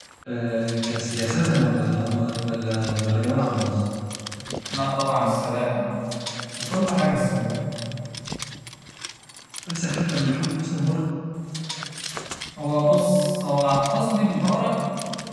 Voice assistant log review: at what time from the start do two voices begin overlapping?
none

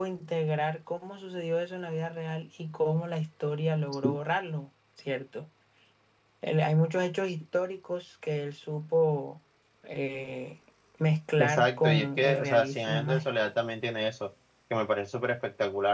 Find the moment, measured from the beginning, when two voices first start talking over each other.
11.4 s

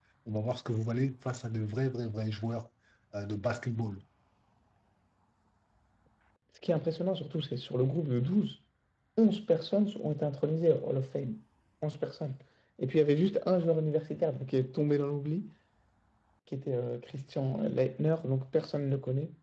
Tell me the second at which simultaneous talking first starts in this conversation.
none

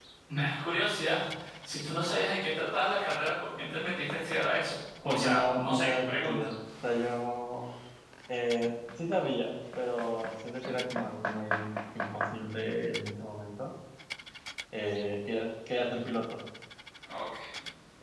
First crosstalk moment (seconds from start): 5.0 s

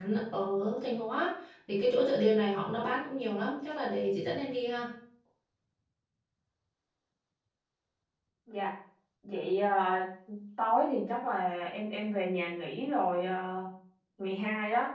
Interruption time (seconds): none

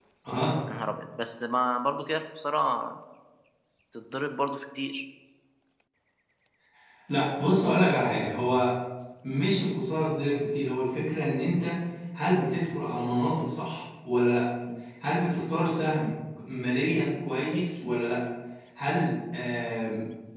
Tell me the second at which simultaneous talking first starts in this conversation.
none

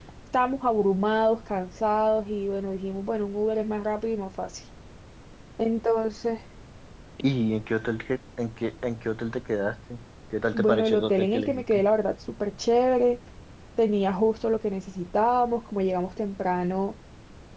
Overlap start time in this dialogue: 10.5 s

